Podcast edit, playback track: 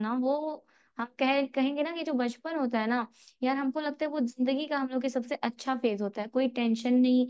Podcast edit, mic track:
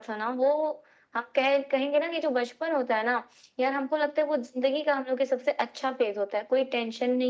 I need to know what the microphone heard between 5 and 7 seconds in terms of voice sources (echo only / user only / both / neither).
echo only